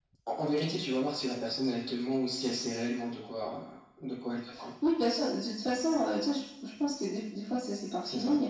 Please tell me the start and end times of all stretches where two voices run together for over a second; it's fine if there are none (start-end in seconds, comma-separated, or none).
none